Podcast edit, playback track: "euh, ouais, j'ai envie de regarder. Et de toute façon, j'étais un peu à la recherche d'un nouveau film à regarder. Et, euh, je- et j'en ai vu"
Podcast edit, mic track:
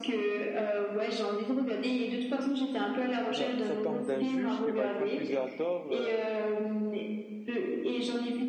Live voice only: Bah, ça parle d'un juge qui va être accusé à tort euh,

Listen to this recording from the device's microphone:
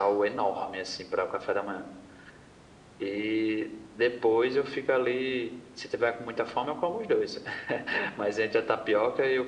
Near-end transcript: none

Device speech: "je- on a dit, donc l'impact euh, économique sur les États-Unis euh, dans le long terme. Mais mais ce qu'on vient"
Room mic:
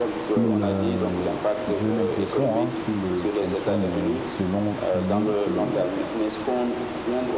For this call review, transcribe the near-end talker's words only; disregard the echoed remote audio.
il, euh, j'ai l'impression hein, qu'il euh, fonctionne euh, selon lui, c'est

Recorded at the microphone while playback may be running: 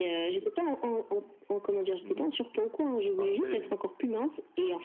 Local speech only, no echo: Mhm. Parfait.

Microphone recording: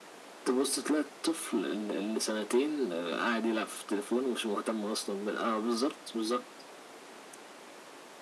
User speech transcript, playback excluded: none

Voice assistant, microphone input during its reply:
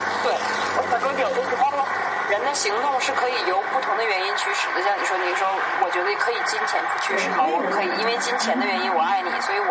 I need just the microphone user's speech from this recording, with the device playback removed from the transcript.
对，所以我才，嗯，

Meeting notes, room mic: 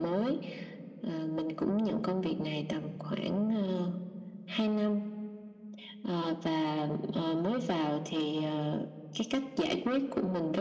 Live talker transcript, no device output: none

